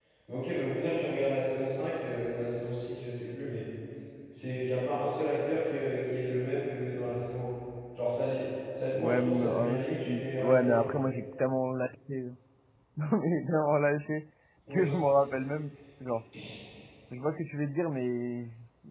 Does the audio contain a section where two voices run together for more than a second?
Yes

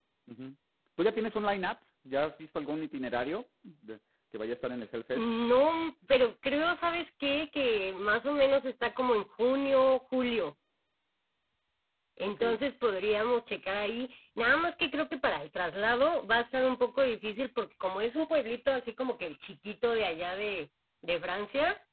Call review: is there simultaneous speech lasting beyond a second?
No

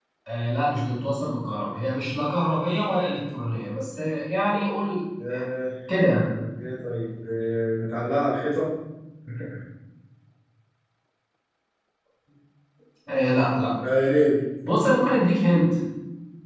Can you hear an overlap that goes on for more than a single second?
No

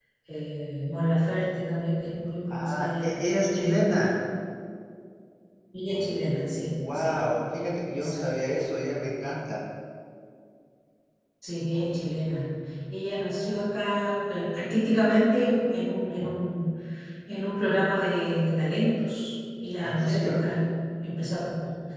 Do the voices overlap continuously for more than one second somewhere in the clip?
Yes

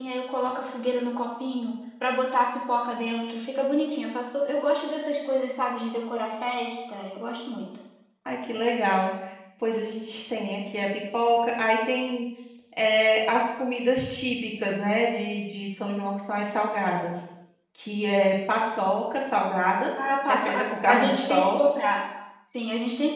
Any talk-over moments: Yes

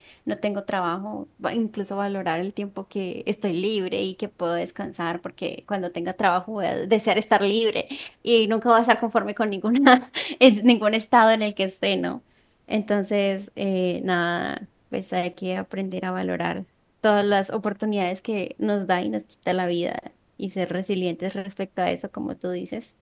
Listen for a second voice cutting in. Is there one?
No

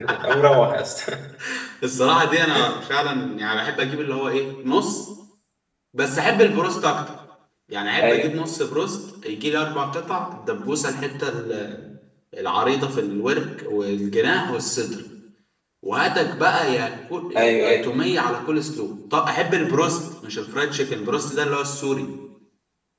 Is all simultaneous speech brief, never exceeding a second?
Yes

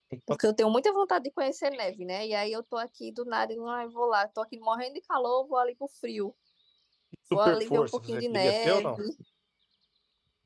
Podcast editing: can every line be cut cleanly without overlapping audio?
No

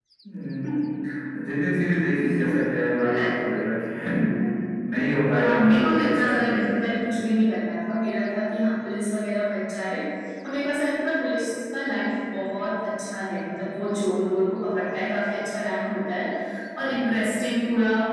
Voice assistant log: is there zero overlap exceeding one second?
No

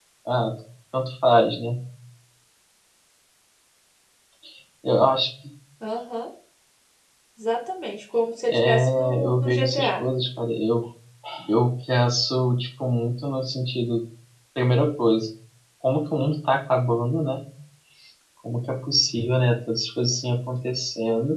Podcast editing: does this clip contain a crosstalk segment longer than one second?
Yes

